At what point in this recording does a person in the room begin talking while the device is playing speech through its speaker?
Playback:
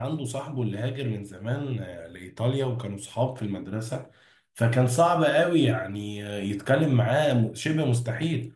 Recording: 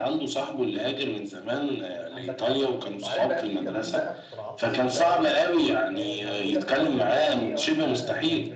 2.1 s

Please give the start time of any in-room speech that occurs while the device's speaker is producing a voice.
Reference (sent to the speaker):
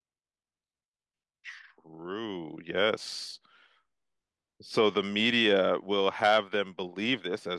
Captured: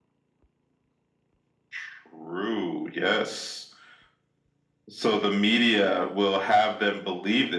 none

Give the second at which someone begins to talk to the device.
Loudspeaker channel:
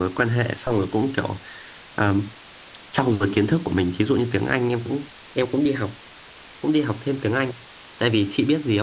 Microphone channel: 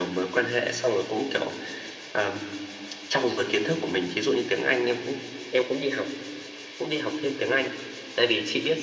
none

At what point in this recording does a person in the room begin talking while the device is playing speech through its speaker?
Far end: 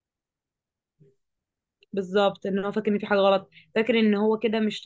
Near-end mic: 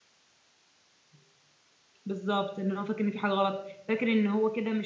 none

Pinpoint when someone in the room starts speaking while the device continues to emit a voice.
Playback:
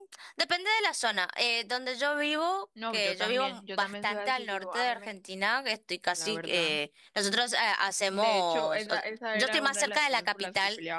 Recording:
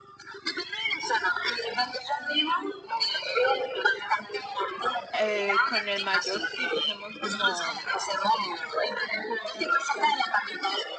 5.1 s

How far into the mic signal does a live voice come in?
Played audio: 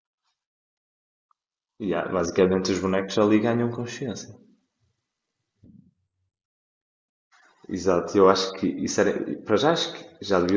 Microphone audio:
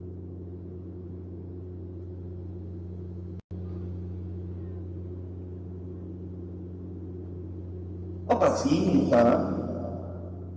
8.2 s

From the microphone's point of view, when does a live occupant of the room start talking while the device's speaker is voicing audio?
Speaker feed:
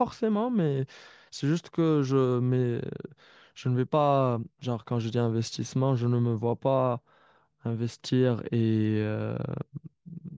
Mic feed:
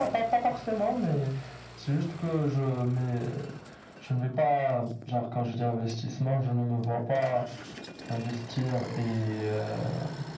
none

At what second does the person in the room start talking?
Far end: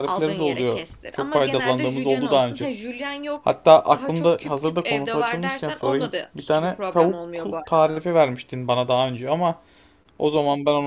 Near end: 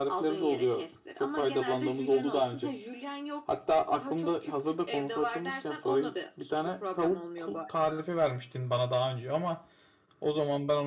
none

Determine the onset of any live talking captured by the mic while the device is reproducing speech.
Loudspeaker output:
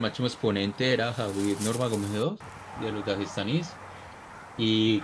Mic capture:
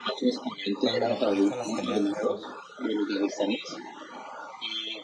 0.8 s

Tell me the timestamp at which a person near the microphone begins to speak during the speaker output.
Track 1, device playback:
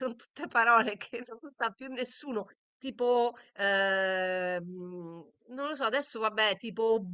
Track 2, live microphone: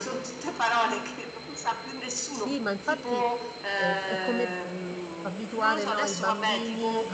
2.2 s

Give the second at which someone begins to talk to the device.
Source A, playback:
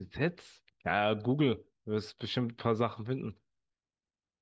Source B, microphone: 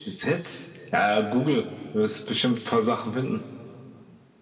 none

